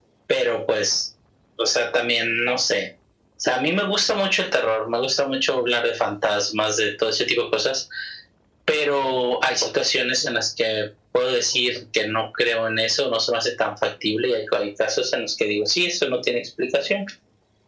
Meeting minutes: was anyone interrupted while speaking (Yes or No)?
No